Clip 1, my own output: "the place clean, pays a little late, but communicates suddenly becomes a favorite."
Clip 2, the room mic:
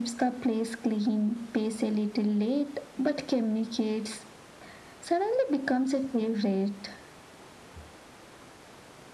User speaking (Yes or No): No